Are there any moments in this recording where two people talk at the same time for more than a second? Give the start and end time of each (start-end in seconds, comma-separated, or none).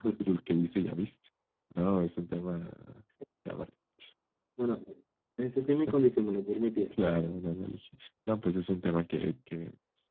none